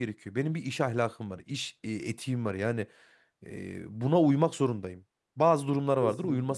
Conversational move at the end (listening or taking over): listening